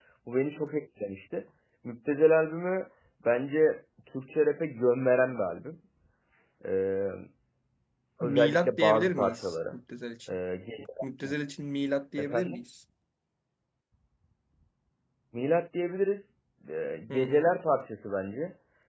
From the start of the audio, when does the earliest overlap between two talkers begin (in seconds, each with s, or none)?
8.2 s